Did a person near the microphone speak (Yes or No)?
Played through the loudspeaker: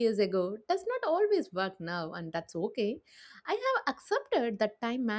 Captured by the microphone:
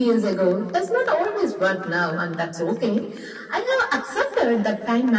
No